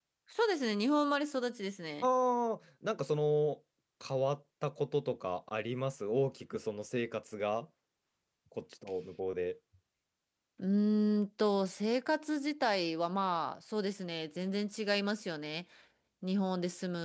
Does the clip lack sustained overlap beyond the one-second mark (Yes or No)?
Yes